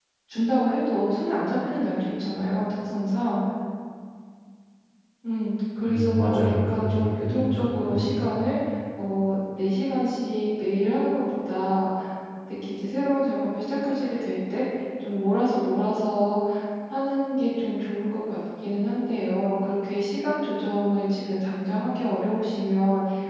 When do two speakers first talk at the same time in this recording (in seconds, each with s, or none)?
5.9 s